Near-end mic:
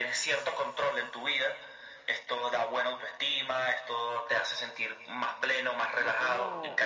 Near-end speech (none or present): present